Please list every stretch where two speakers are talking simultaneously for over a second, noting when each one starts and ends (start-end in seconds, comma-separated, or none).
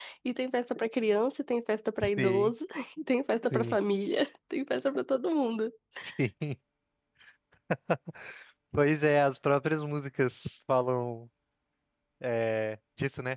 none